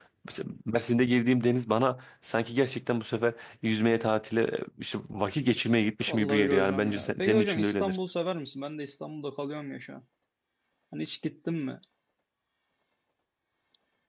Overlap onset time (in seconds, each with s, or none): 6.1 s